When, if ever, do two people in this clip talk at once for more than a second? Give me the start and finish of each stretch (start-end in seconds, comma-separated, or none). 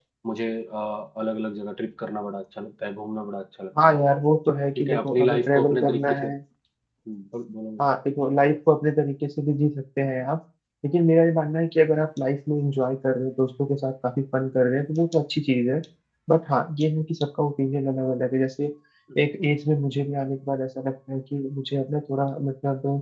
4.8-6.2